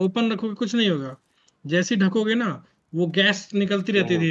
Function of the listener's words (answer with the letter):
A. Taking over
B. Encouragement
B